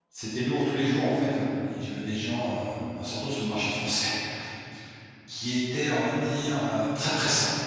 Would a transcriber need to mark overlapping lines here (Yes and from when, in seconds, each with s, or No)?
No